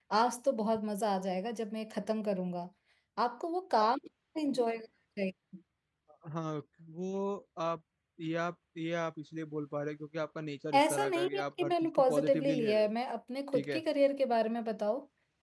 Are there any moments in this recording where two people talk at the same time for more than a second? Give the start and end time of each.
10.8-12.9

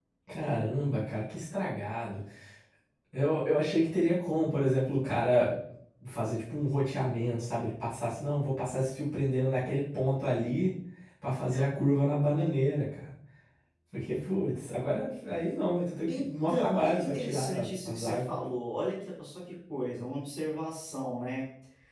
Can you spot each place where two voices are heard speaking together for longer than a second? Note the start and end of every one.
16.1-18.3

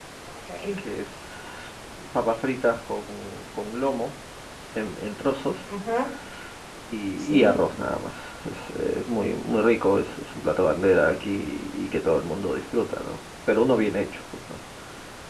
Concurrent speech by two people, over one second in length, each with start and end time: none

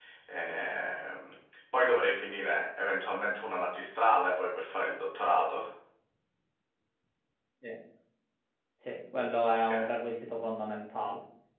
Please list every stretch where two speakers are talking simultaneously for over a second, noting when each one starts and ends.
none

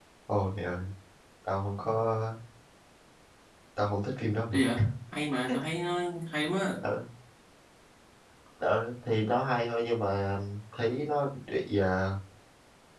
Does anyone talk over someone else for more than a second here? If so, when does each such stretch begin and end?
none

